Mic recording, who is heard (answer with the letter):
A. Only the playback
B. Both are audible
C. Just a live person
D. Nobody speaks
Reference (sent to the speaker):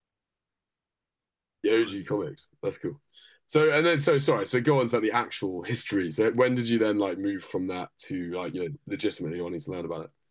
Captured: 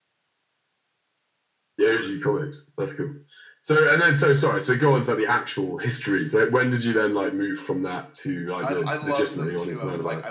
B